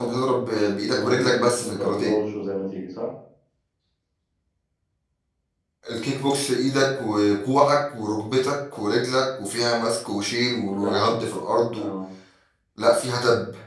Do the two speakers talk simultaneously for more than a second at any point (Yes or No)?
Yes